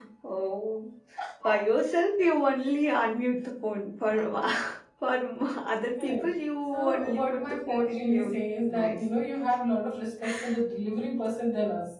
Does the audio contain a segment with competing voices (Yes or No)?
Yes